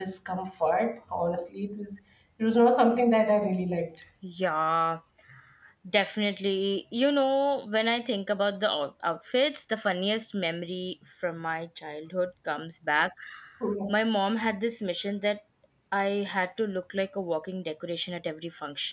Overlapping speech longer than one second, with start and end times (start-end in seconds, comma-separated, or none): none